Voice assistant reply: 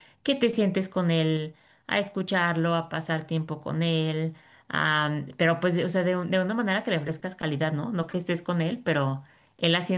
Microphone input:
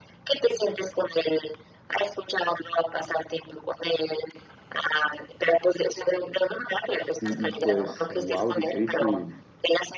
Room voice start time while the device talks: 7.2 s

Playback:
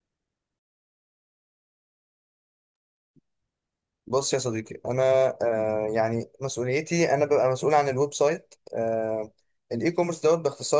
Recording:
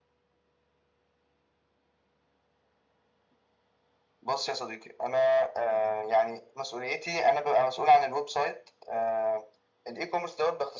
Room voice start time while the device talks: none

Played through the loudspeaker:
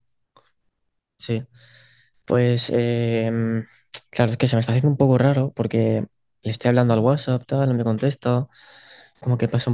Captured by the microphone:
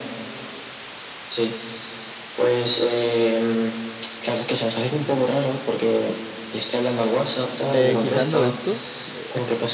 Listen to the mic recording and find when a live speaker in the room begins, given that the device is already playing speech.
7.7 s

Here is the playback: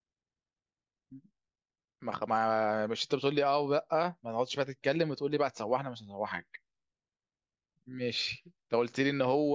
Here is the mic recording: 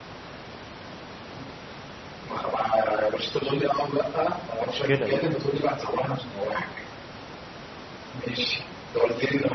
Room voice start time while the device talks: 4.6 s

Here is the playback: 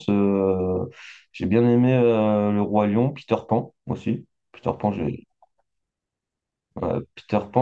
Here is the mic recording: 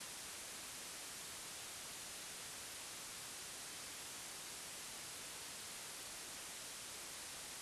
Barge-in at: none

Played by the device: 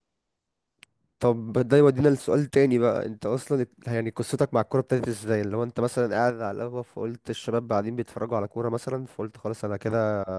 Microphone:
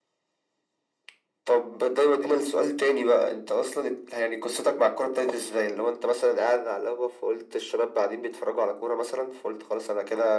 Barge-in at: none

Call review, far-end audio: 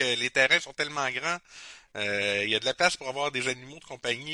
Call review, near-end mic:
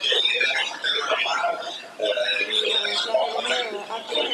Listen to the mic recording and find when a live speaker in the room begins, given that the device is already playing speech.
2.4 s

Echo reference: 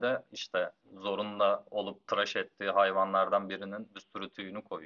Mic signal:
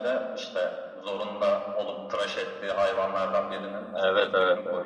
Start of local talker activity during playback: 3.9 s

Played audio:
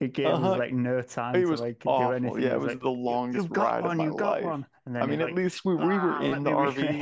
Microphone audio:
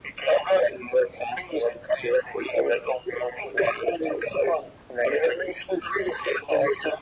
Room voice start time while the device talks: none

